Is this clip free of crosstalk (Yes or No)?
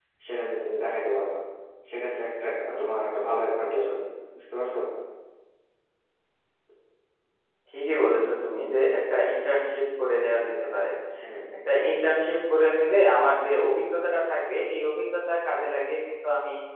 Yes